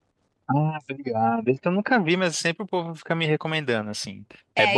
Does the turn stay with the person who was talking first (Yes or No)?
No